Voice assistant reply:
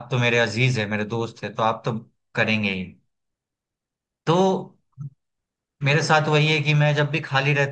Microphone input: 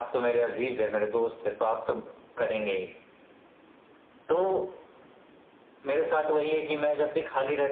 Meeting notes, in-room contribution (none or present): none